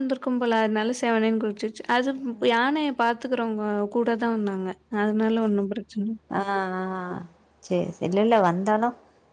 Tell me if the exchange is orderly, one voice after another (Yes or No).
Yes